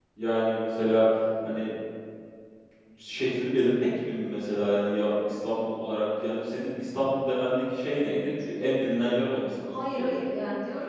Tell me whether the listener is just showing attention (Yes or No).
No